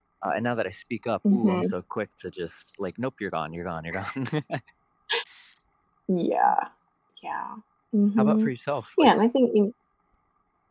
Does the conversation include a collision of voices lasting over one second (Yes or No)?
No